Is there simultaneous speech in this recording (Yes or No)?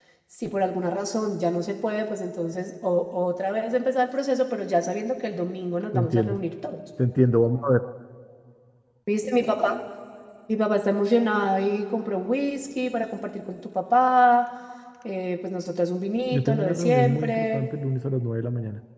Yes